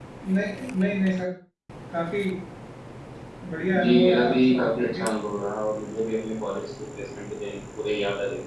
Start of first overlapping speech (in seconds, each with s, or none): 3.8 s